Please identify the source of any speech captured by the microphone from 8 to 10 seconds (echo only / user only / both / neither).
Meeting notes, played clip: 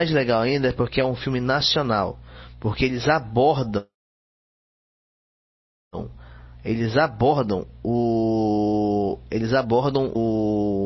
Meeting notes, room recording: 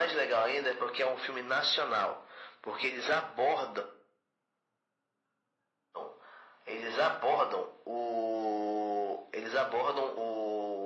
echo only